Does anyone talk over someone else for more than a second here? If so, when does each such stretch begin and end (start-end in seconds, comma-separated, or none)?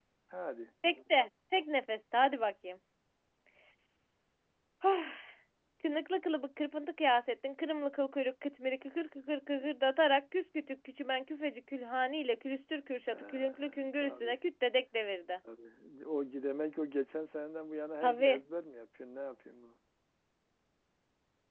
13.1-14.3